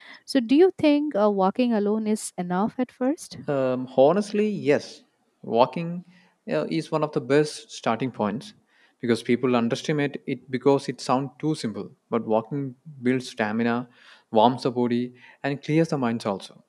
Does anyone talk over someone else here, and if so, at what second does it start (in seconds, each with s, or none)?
none